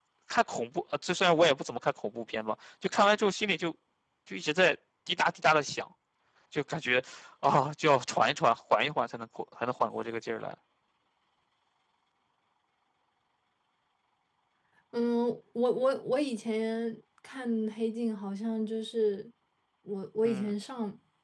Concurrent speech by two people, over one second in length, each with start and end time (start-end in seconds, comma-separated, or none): none